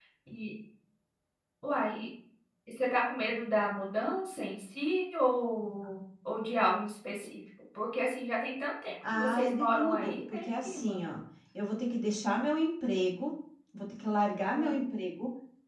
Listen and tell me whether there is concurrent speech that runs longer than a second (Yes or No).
Yes